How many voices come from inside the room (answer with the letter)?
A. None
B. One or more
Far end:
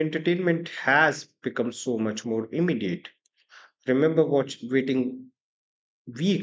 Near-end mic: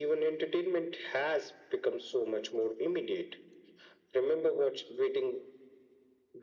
A